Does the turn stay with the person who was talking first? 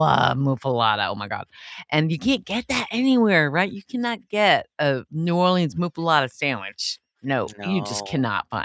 Yes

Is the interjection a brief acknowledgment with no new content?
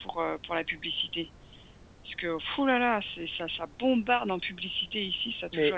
No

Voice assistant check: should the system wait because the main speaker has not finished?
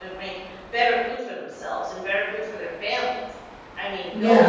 No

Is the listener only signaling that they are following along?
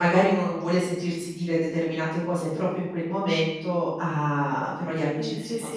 No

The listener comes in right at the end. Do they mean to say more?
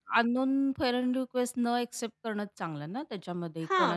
Yes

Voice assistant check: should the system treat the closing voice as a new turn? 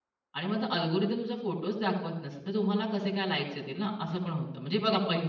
No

